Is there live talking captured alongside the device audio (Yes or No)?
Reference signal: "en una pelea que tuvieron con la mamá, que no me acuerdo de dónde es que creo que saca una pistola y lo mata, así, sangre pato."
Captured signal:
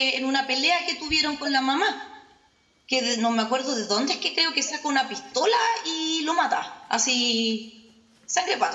No